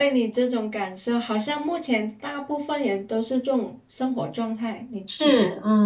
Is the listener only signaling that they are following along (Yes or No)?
No